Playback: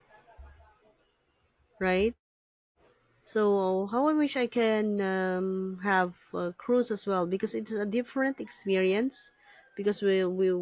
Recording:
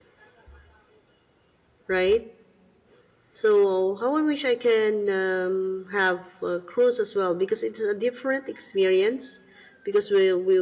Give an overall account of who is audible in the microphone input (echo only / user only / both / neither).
echo only